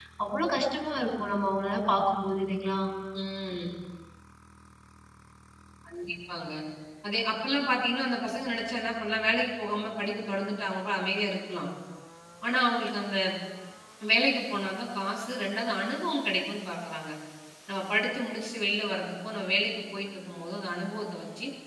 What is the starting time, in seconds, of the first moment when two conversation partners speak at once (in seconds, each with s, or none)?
none